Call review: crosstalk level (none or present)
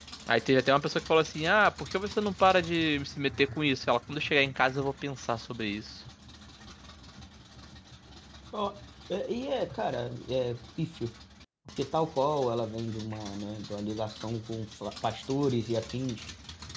none